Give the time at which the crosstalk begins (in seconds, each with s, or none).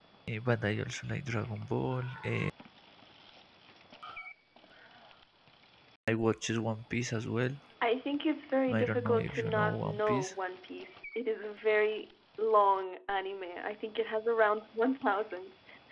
8.7 s